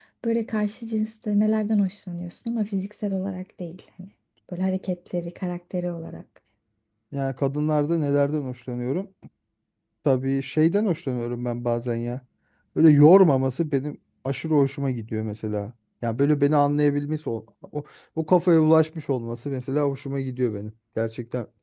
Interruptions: none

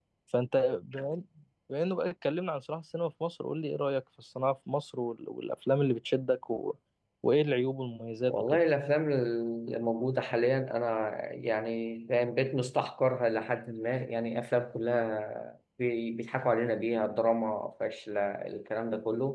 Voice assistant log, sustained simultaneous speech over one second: none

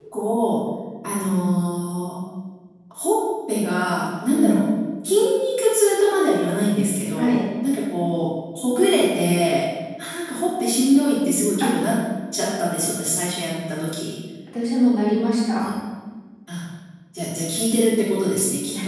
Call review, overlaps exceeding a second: none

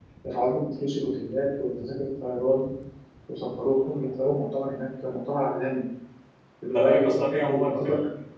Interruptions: present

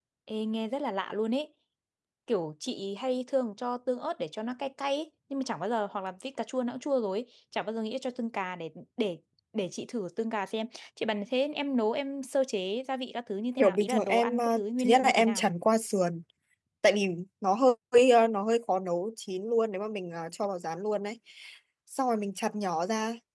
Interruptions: present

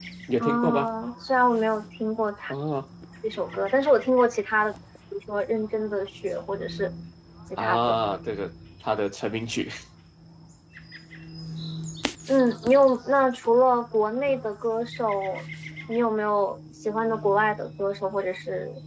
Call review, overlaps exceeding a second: none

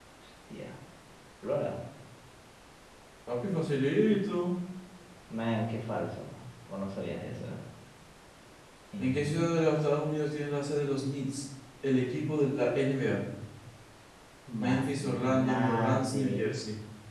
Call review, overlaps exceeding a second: present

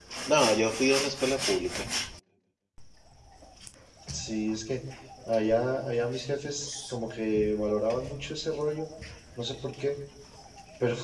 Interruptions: none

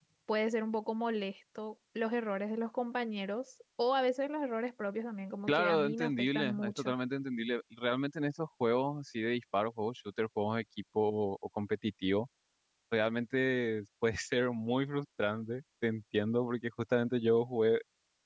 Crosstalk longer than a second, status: present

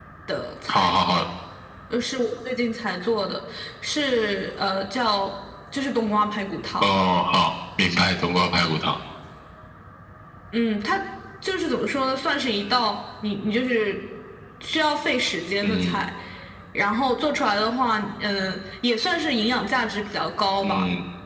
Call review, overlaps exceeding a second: none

